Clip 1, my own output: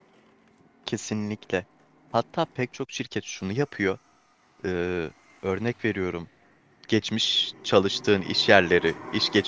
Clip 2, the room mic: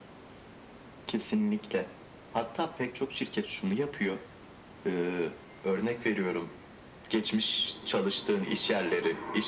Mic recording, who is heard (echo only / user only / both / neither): echo only